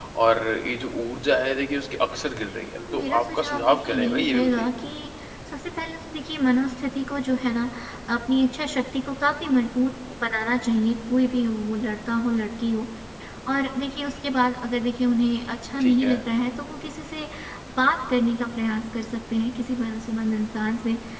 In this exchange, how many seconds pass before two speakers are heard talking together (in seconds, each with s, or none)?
2.8 s